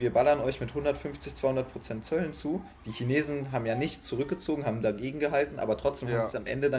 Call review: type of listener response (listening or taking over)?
listening